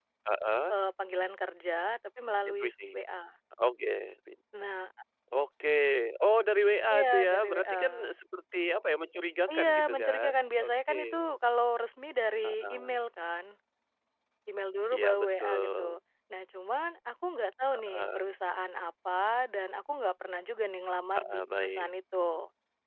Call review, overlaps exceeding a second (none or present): present